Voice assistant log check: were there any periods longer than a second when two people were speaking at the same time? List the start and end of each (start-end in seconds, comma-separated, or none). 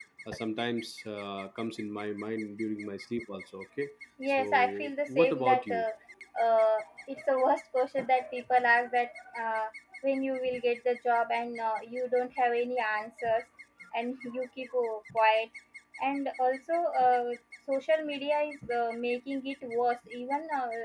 4.3-5.8